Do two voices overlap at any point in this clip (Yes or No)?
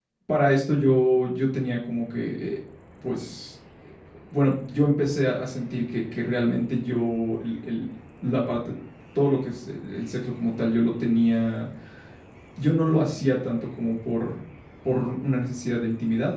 No